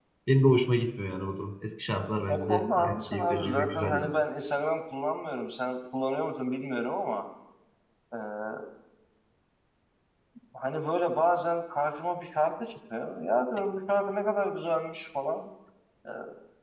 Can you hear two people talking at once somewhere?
Yes, from 2.3 s

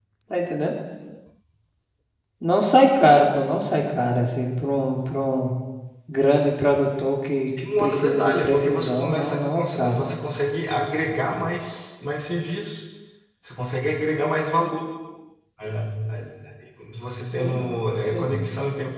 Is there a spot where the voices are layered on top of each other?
Yes, from 7.6 s

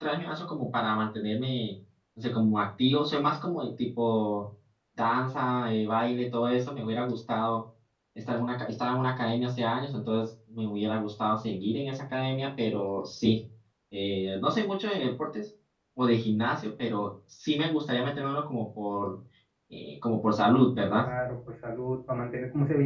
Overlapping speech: No

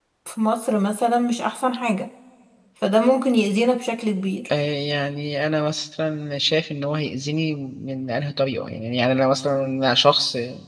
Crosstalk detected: No

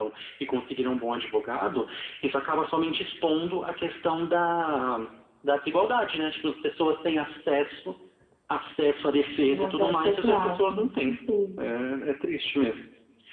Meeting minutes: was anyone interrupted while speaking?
Yes, from 9.5 s

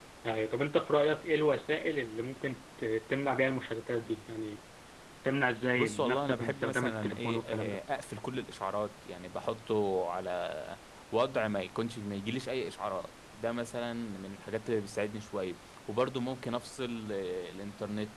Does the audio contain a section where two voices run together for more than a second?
Yes, from 5.8 s

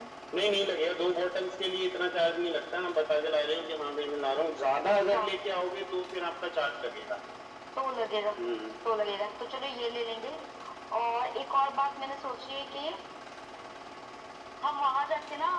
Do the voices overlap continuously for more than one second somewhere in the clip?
No

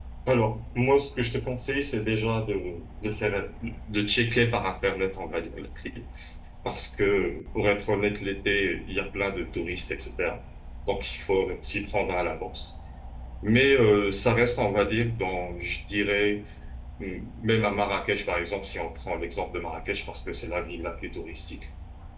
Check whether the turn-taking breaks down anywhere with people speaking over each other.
No

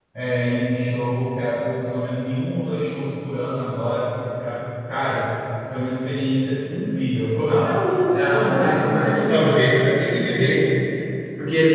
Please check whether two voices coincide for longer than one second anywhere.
Yes, from 8.1 s

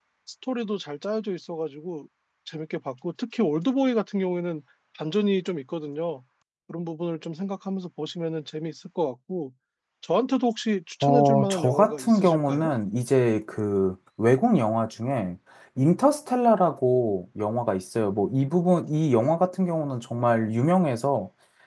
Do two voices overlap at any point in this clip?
Yes, from 11.0 s

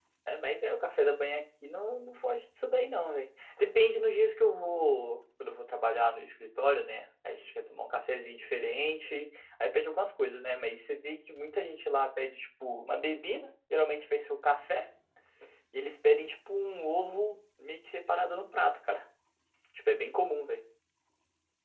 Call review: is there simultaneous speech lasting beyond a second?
No

